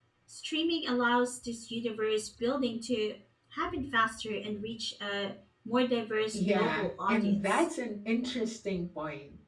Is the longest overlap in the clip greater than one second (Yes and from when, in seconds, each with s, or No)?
Yes, from 6.3 s